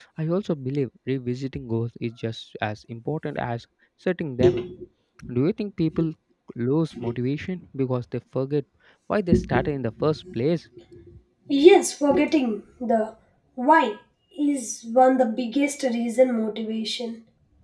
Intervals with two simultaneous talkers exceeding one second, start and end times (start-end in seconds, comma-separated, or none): none